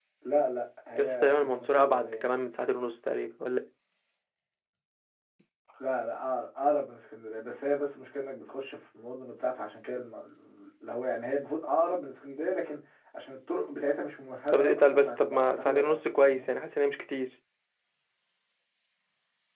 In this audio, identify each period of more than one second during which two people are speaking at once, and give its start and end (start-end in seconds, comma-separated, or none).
1.0-2.3, 14.5-16.5